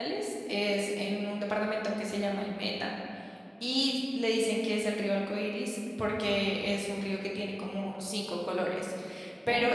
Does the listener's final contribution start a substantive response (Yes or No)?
No